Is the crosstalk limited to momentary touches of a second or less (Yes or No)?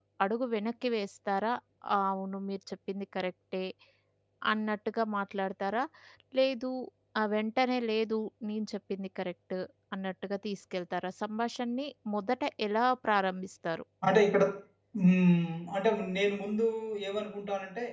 Yes